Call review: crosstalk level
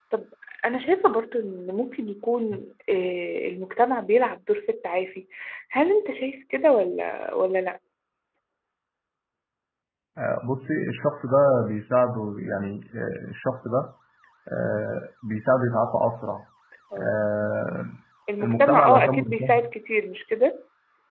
present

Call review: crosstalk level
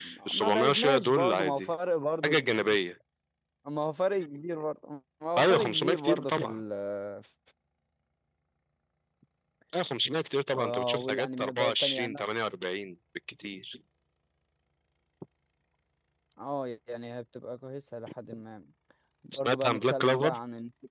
present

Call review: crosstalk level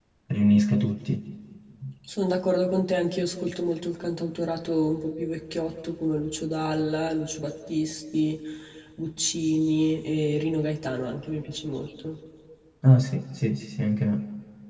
none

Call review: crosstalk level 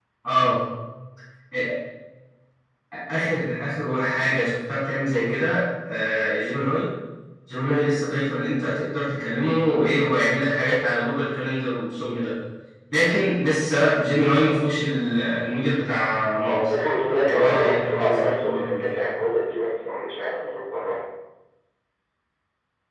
present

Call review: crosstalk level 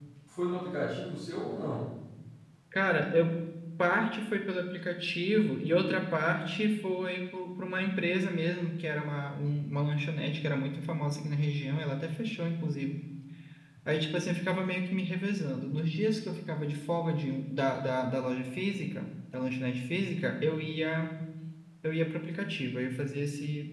none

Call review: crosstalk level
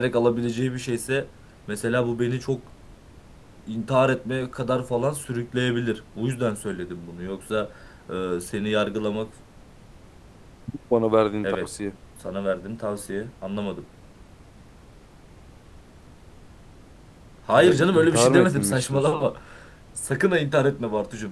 present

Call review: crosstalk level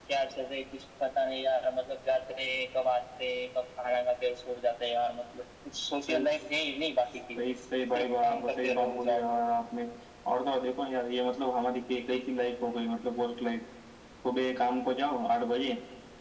present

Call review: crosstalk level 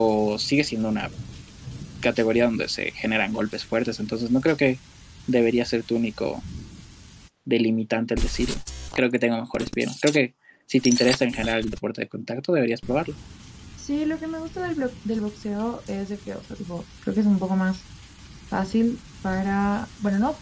none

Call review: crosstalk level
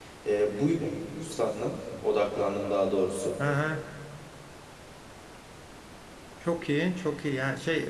none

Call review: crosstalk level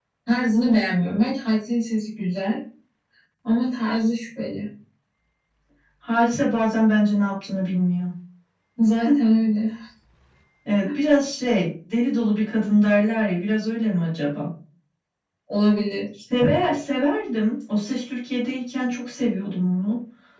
none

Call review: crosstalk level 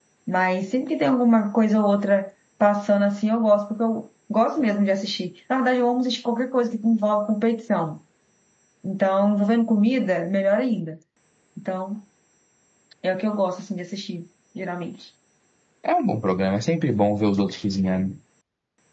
none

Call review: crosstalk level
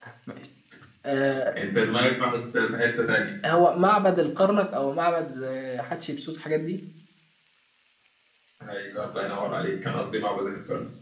none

